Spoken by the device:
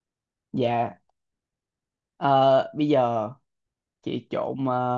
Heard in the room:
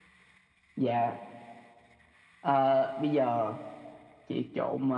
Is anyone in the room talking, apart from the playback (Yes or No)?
No